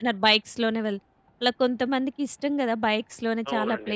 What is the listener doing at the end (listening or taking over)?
taking over